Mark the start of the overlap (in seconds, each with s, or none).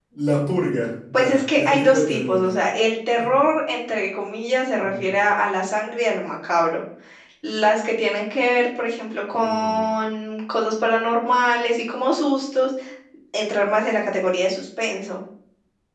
1.1 s